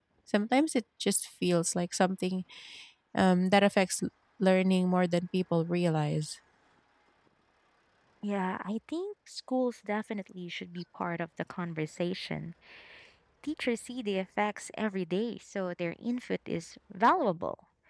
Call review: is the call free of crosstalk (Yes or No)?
Yes